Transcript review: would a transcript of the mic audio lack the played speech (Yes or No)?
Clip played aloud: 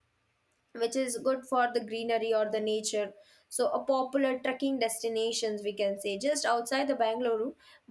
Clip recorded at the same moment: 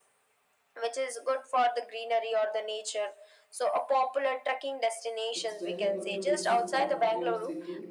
No